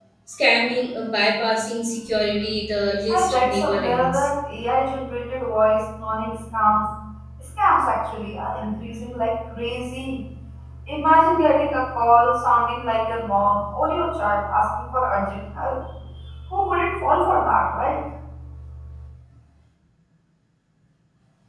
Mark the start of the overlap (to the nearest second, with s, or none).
3 s